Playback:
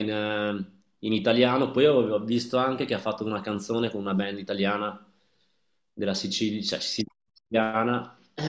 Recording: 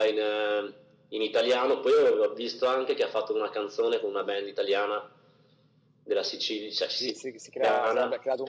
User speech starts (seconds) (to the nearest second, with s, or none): 7 s